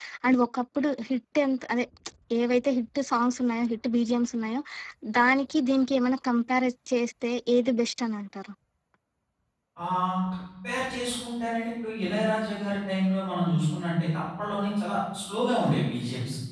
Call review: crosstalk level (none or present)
none